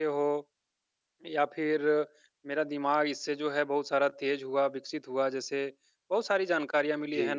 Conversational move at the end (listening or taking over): listening